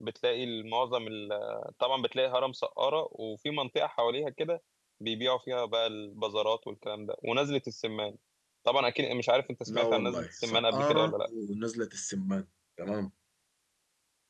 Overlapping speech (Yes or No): Yes